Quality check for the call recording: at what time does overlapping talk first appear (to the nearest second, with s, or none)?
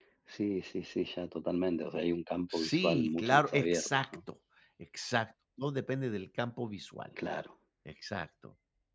3 s